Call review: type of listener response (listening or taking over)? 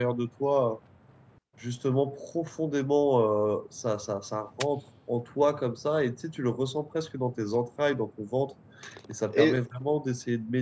listening